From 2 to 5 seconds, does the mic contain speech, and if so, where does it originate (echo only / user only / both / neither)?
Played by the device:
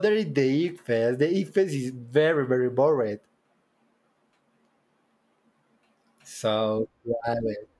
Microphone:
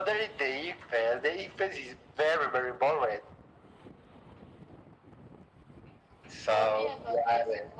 echo only